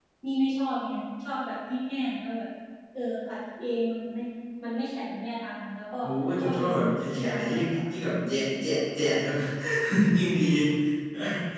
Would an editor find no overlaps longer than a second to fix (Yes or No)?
No